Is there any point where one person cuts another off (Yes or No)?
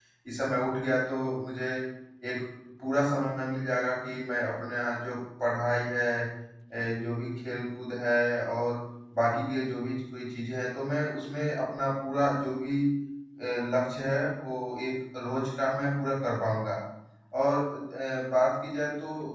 No